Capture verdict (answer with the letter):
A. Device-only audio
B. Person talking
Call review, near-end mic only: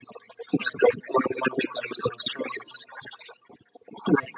A